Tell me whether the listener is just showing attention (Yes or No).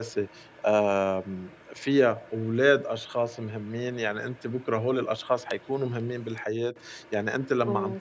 Yes